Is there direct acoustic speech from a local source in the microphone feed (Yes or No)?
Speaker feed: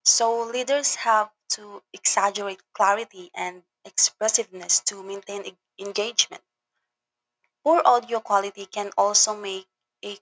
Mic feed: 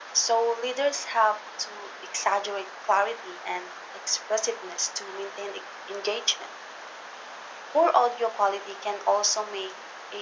No